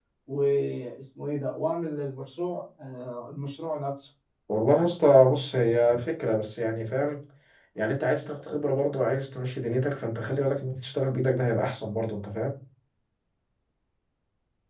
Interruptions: none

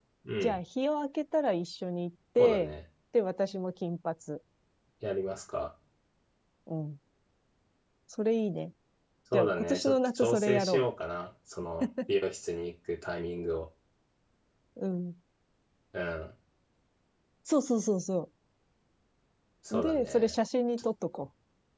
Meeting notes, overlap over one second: present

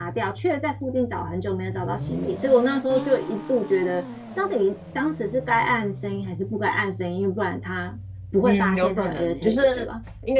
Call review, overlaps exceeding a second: present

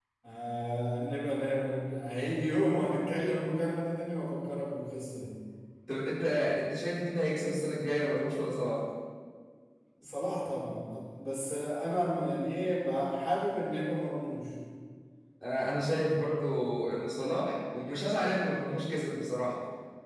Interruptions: none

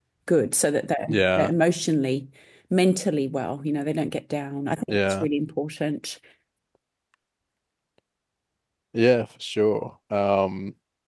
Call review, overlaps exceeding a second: none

